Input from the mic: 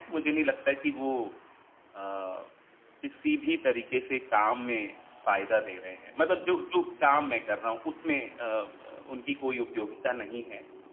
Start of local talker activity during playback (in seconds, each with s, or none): none